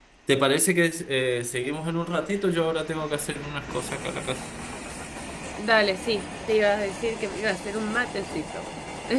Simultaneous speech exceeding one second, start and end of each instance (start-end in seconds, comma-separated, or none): none